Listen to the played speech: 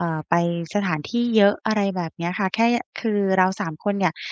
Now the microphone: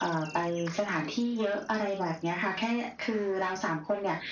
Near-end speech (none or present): none